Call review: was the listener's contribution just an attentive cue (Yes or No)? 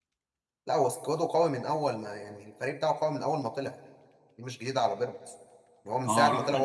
No